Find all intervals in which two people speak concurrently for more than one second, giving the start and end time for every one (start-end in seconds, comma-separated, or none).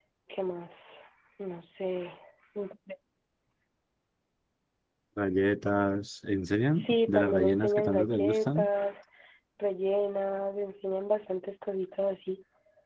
6.7-8.7